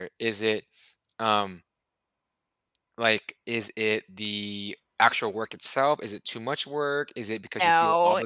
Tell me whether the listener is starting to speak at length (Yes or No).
No